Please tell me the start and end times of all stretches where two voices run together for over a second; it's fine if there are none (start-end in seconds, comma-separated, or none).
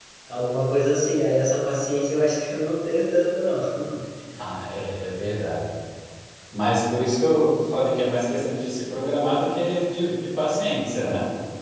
none